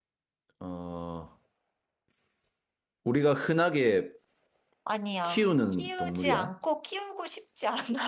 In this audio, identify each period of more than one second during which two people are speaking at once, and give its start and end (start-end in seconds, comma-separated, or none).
5.2-6.5